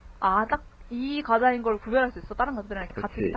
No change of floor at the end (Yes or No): No